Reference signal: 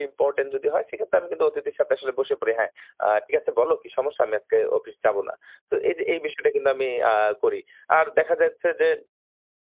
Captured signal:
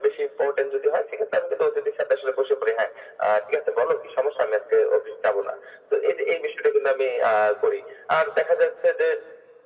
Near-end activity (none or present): none